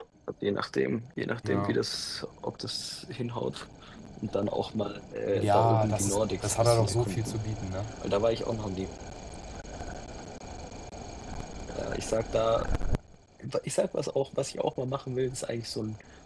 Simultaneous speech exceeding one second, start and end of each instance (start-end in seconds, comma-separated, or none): 5.3-7.4